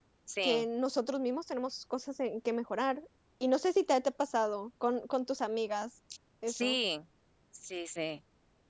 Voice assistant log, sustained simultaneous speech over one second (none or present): none